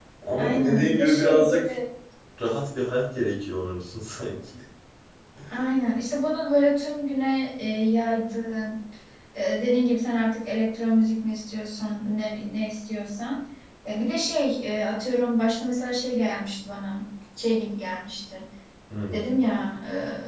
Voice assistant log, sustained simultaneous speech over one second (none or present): present